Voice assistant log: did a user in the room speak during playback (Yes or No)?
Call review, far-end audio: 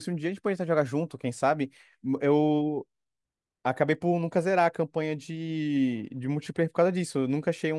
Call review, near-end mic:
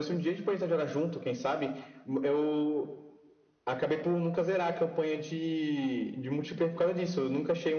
No